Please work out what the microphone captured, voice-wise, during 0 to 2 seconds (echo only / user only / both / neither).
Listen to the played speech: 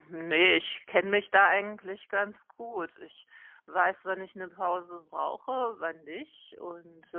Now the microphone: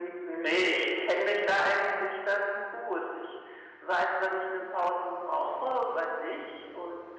echo only